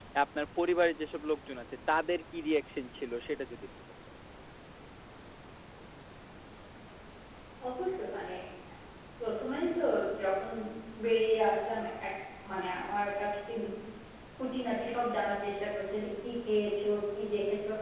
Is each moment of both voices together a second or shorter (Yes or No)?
Yes